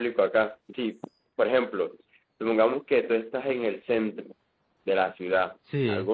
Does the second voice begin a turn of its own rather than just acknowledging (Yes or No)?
No